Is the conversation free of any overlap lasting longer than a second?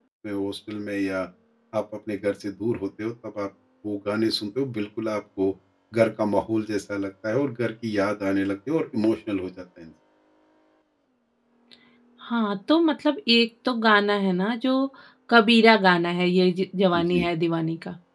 Yes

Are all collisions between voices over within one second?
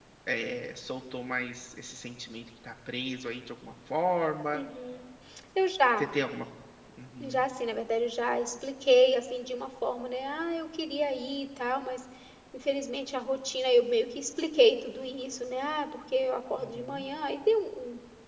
Yes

